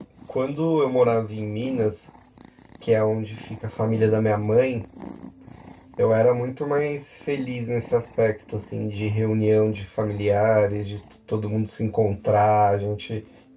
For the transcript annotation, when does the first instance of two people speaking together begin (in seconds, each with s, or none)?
none